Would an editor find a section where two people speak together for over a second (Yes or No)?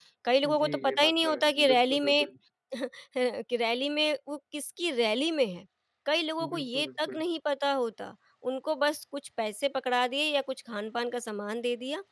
Yes